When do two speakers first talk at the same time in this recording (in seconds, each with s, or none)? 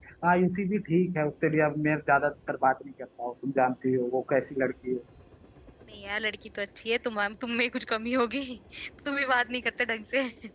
none